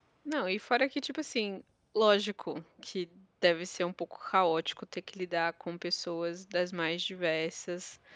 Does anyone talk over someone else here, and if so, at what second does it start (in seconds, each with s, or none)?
none